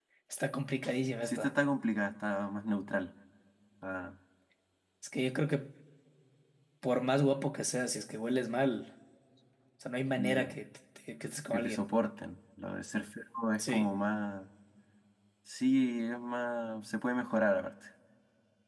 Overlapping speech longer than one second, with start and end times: none

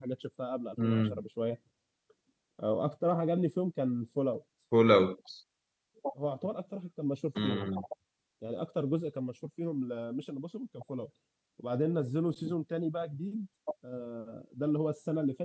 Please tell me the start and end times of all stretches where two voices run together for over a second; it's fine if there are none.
none

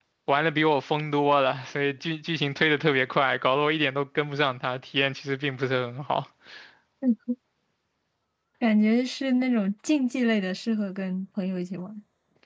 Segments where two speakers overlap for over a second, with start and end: none

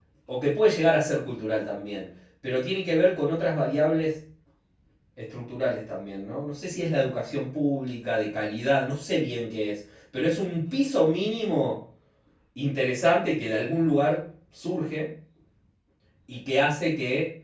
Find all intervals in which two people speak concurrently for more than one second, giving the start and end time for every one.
none

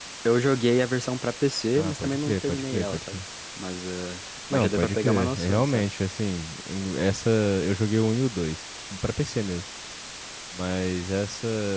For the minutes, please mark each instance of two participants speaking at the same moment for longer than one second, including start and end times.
1.8-3.2, 4.5-5.9

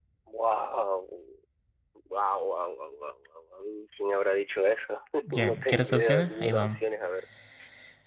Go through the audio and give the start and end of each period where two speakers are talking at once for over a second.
5.3-6.8

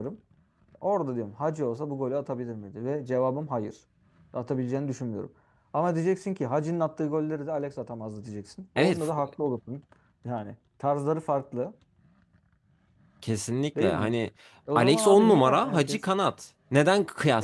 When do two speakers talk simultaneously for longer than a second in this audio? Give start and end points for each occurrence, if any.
14.8-16.0

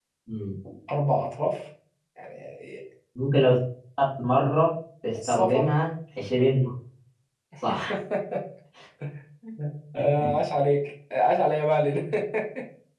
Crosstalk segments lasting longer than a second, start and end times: none

